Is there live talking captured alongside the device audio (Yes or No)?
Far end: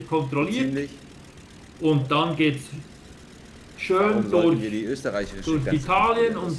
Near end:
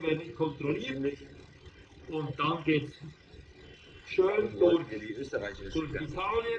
No